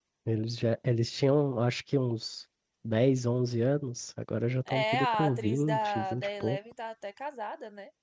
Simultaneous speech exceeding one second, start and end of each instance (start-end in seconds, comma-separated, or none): 4.7-6.6